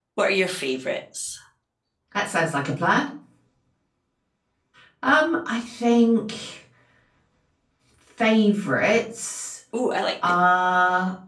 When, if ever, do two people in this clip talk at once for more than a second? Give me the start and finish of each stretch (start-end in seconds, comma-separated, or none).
none